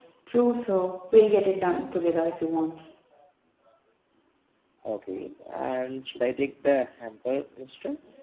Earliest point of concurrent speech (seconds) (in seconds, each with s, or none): none